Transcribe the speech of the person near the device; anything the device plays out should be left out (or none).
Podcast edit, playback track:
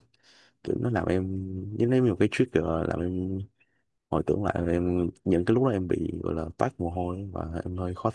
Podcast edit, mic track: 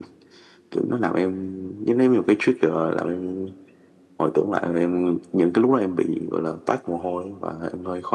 none